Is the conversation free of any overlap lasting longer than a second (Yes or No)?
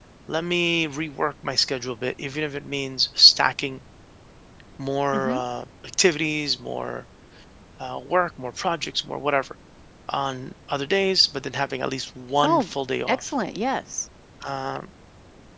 Yes